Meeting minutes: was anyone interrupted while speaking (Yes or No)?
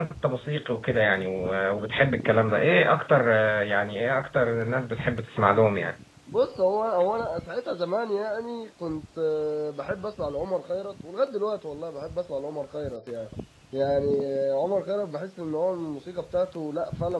No